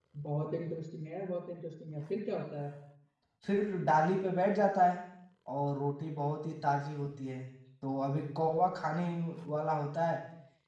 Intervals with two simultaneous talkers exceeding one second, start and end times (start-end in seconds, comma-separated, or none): none